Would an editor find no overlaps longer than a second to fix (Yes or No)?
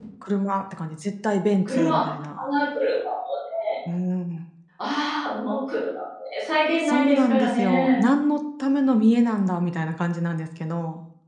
No